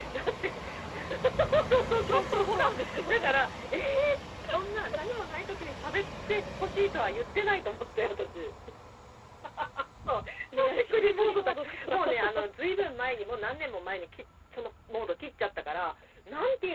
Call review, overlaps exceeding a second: present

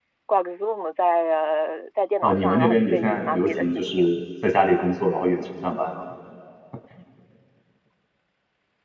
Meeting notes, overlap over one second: present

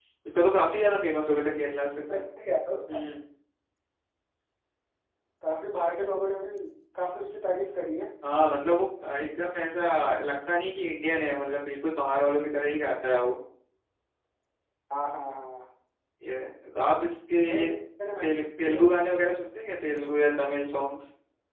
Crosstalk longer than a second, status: none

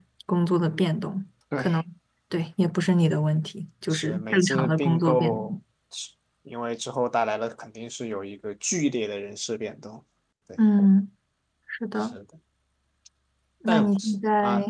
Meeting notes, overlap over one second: present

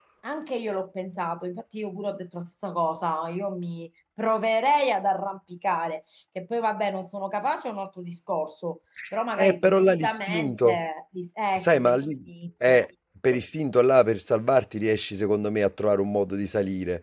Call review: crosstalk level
present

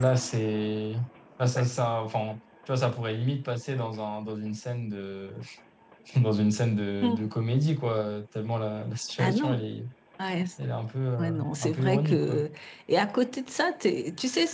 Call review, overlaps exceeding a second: present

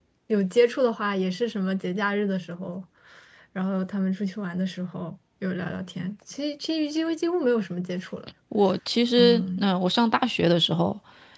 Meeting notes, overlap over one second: none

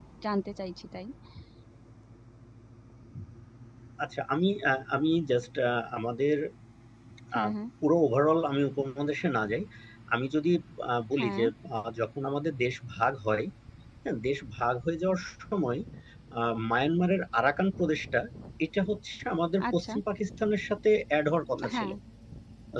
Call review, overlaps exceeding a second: none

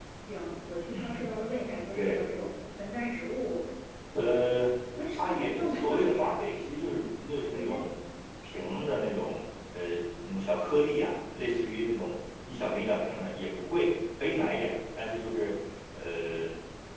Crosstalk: present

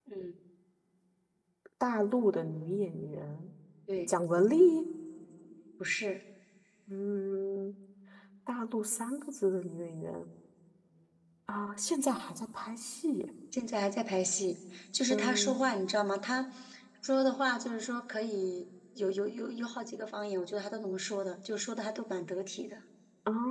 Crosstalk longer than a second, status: none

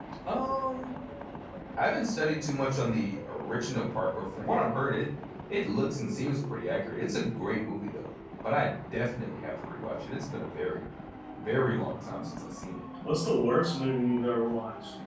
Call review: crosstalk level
none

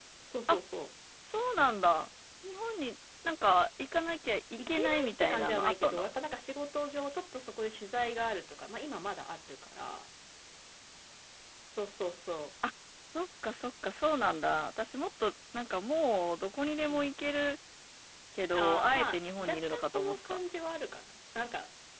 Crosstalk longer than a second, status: present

